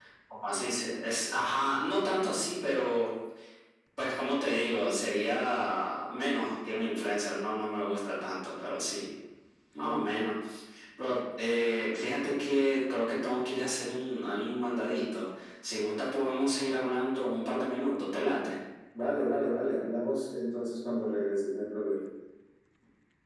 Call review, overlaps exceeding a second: none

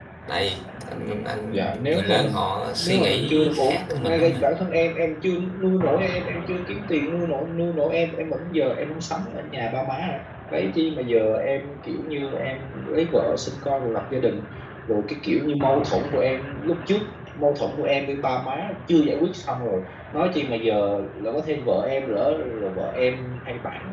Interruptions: present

